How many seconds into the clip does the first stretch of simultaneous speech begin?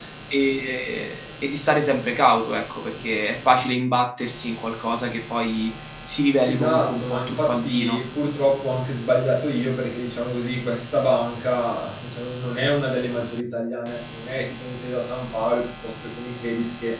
6 s

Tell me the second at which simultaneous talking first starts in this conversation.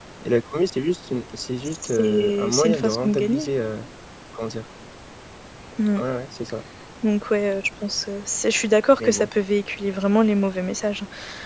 2 s

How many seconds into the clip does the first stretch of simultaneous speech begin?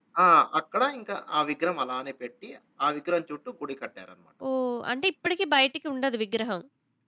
none

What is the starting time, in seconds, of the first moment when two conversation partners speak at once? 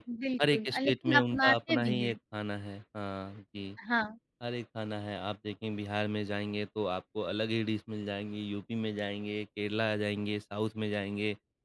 1 s

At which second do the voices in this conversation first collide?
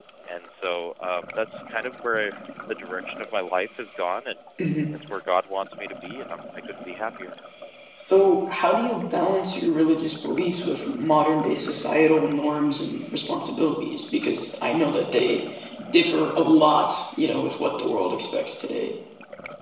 none

